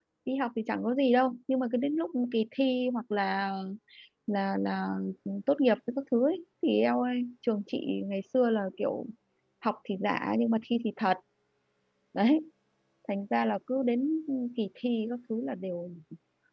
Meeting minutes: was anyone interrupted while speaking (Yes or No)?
No